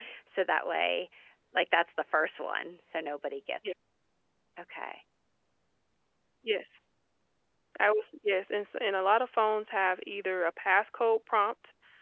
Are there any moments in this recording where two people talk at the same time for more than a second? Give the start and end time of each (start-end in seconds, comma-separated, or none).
none